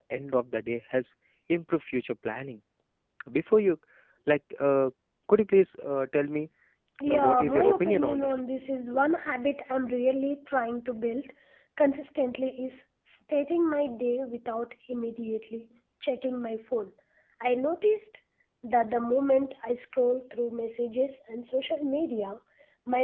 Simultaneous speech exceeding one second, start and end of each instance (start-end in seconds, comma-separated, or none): 7.1-8.4